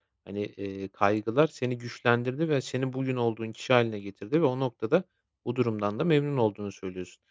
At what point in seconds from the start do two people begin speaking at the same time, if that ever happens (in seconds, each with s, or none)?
none